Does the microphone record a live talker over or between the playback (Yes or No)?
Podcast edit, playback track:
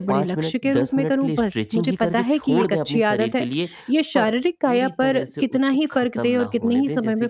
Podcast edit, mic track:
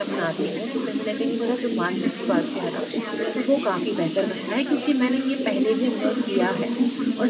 Yes